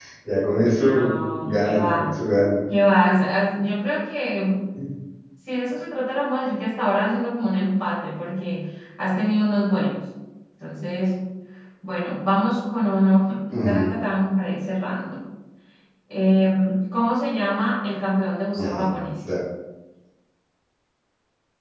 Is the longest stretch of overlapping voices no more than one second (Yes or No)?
No